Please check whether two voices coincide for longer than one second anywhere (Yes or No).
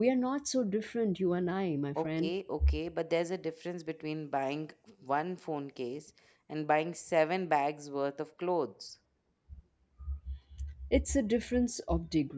No